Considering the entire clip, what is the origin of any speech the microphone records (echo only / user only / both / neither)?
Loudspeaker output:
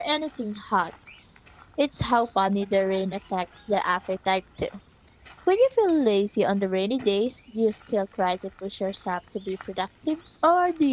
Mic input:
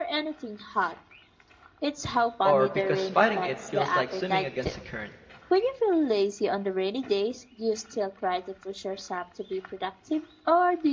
both